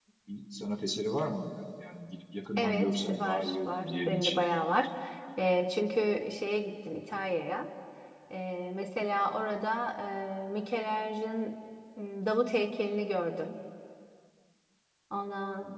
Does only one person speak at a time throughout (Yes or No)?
No